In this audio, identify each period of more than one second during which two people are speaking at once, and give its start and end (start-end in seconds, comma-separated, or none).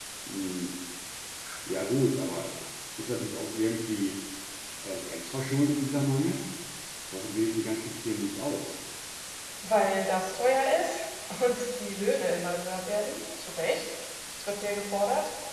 none